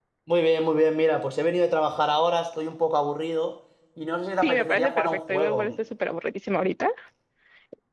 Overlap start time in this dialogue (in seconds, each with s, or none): 4.4 s